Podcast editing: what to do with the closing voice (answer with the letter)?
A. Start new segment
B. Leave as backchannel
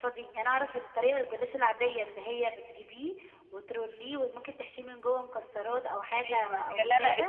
A